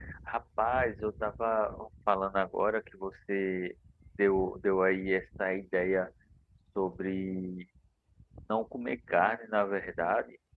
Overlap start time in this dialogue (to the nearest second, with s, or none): none